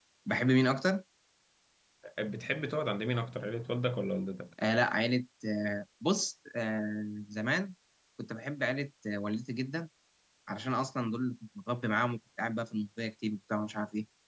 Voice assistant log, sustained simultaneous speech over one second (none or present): none